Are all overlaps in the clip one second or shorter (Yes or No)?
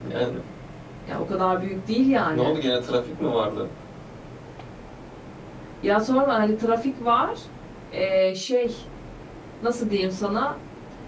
Yes